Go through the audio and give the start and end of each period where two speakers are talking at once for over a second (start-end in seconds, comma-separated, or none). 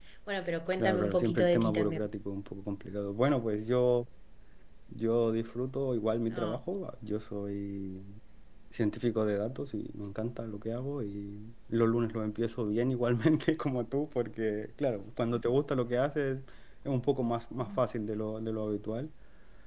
0.8-2.0